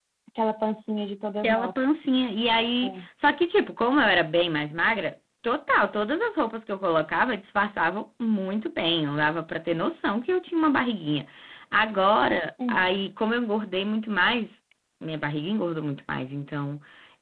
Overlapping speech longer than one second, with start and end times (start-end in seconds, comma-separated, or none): none